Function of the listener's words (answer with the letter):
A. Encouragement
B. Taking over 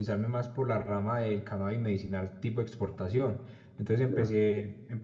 A